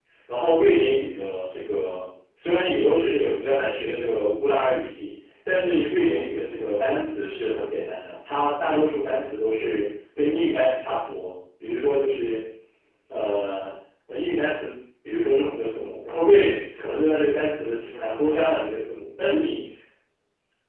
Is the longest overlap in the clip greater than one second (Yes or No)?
No